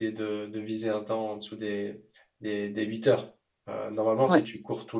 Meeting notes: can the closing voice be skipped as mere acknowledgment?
Yes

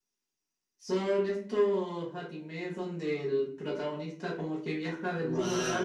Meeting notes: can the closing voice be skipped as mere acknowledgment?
No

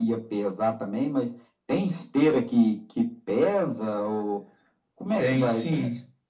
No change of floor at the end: No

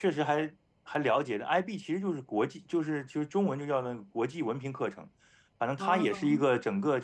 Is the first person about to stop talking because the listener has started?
No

